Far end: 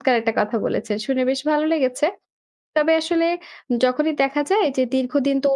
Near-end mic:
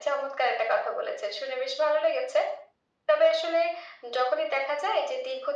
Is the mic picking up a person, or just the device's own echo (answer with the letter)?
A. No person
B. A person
A